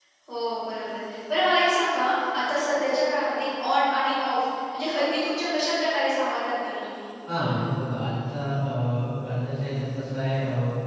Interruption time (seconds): none

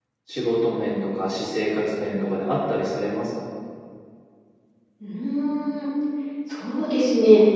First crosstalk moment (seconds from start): none

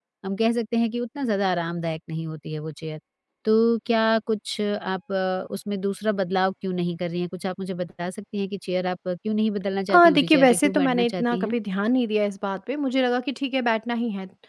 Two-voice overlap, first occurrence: 9.9 s

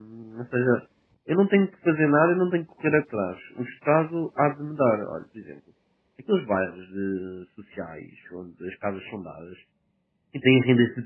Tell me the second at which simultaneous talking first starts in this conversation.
none

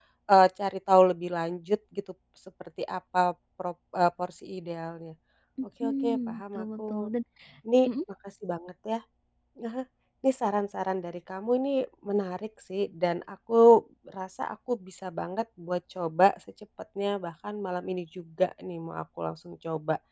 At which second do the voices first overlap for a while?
5.8 s

